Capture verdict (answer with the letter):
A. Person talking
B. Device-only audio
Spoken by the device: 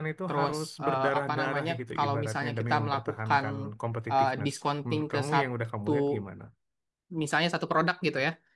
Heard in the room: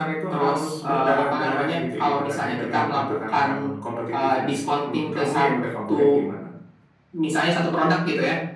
B